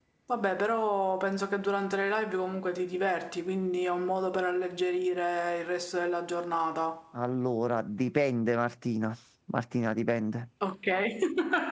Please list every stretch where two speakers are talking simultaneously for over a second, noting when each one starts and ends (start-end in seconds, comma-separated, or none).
none